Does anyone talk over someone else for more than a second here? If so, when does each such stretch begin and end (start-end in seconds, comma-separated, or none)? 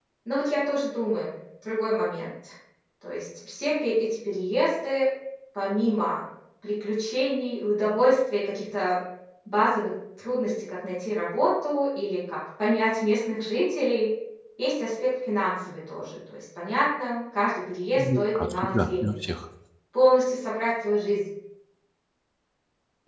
17.9-19.1